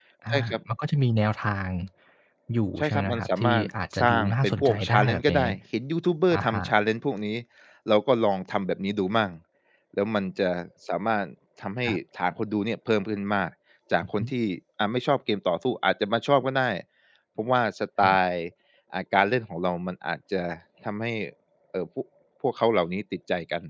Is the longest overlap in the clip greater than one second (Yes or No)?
Yes